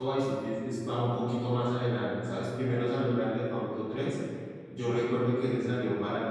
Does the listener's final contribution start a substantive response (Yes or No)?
No